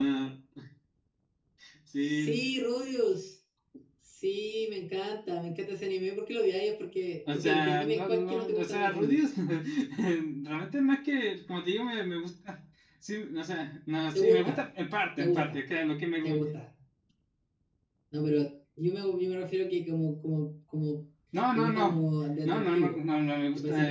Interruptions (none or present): present